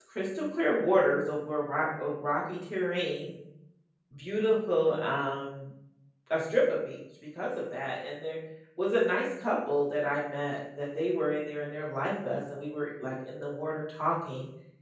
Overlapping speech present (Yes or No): No